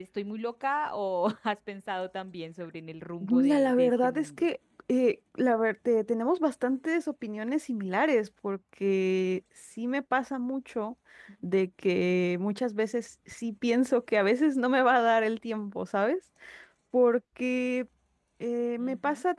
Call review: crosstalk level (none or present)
present